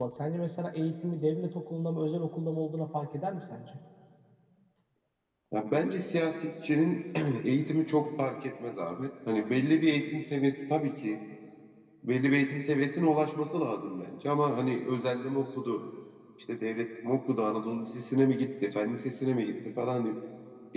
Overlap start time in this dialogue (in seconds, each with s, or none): none